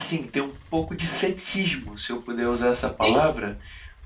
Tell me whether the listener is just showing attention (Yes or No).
Yes